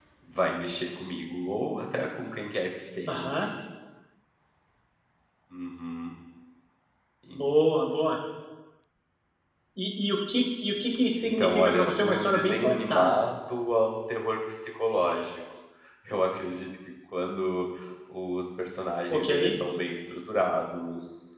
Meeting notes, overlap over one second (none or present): present